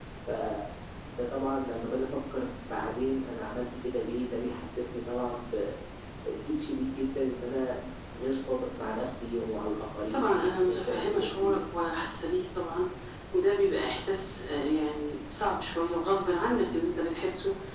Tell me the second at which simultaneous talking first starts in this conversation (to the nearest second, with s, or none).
10 s